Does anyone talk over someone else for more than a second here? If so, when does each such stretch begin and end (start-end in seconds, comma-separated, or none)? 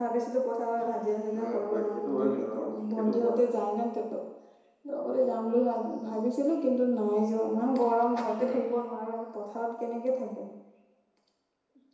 1.4-3.4